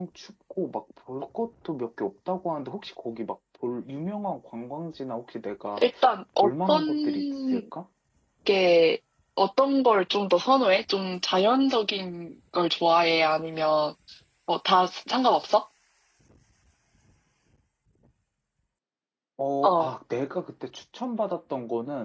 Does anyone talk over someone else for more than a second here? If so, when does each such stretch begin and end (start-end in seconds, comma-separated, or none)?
6.4-7.6